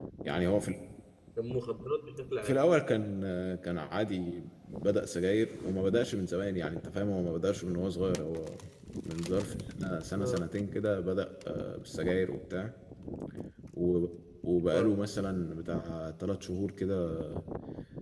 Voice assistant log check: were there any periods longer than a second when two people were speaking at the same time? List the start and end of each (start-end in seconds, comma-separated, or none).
none